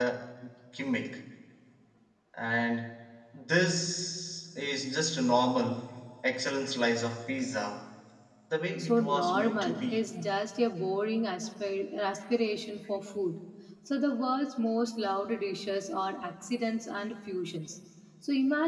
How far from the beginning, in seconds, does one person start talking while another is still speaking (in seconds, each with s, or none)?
8.8 s